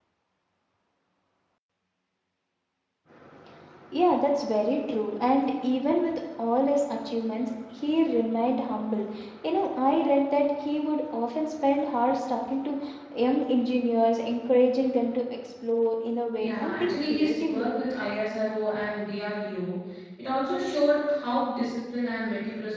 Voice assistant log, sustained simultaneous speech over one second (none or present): present